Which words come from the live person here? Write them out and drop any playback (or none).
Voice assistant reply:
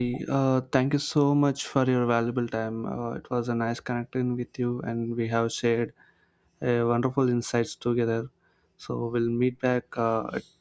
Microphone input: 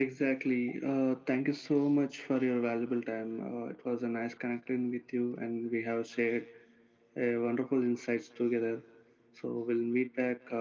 none